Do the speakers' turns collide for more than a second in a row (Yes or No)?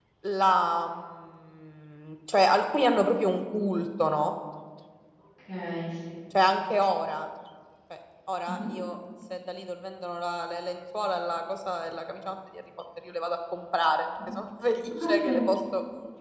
No